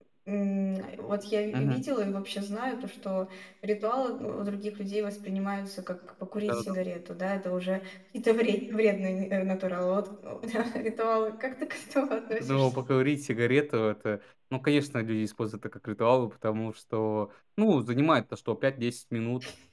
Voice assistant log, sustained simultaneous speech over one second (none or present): none